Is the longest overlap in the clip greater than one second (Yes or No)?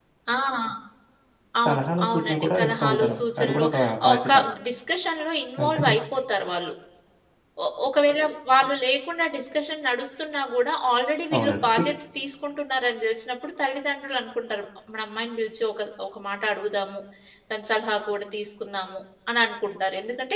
Yes